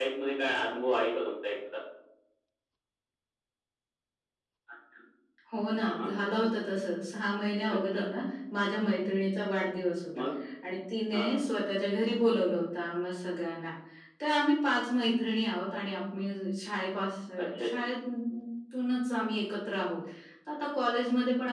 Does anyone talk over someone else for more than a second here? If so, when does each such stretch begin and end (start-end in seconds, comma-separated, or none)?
none